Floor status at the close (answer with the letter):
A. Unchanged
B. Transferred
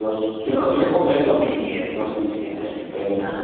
A